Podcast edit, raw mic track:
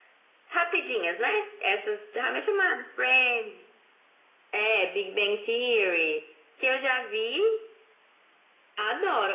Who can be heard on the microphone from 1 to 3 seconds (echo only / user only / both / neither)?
echo only